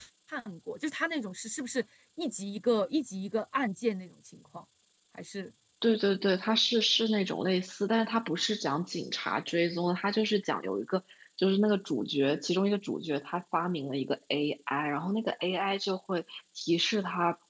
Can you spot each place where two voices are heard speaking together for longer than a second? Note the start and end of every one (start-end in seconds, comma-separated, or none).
none